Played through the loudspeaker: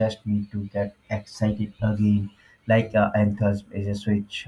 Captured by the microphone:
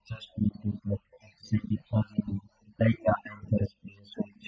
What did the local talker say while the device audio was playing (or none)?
none